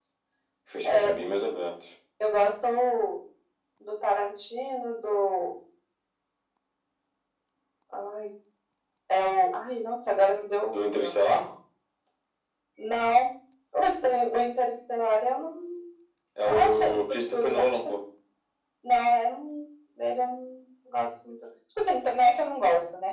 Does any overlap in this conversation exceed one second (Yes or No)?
Yes